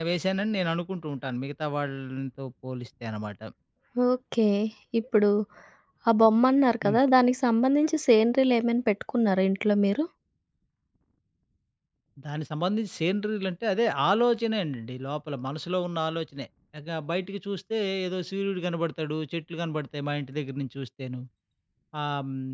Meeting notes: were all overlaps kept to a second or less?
Yes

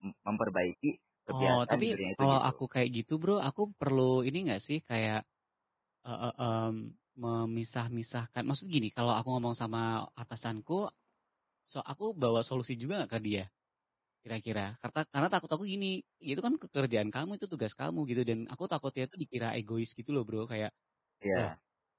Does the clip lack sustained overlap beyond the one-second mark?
No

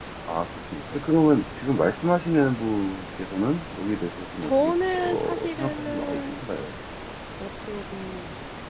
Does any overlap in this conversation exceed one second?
Yes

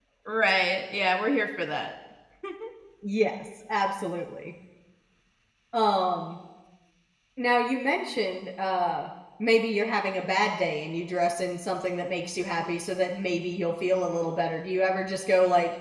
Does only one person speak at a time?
Yes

